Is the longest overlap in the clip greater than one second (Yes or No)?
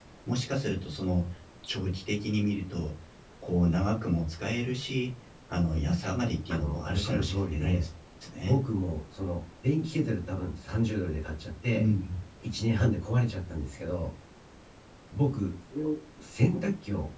Yes